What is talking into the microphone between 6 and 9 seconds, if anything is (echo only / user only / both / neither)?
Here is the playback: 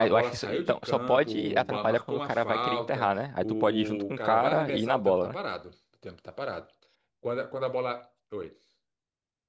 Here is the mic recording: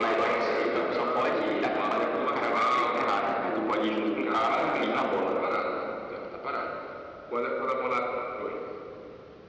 echo only